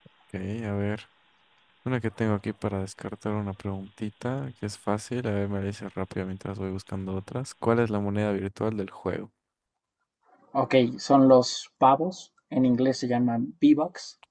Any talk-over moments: No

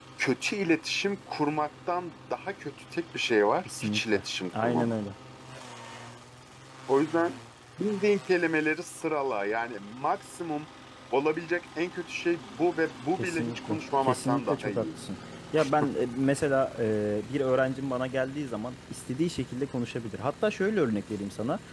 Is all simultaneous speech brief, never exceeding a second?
No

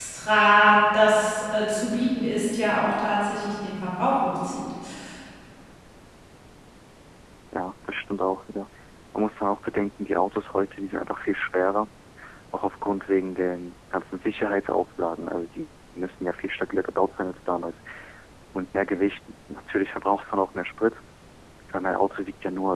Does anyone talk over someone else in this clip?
No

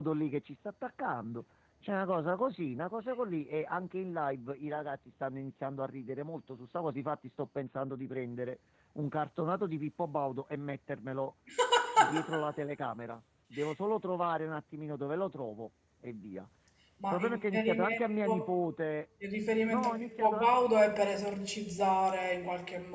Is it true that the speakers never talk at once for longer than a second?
No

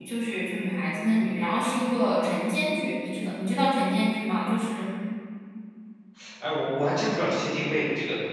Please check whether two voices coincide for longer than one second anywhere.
No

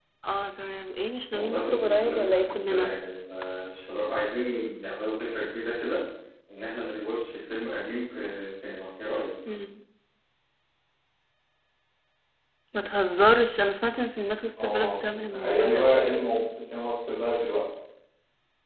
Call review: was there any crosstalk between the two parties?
Yes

